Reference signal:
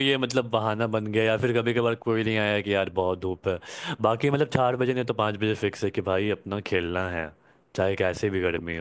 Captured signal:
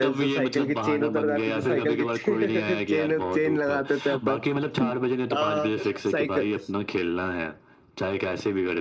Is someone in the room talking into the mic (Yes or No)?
Yes